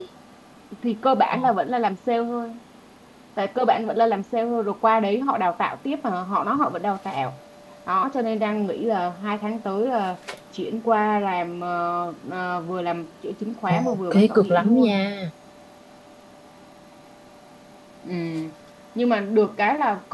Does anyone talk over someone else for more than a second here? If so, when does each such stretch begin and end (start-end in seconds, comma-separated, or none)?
13.7-14.9